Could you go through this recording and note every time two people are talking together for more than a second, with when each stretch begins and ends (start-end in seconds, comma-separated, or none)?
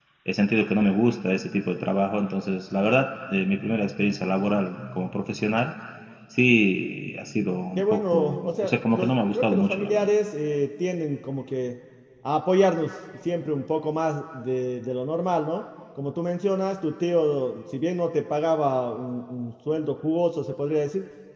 7.8-10.1